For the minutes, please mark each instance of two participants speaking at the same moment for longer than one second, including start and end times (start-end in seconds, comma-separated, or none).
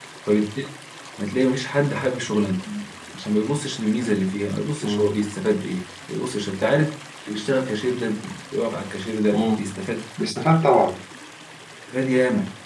none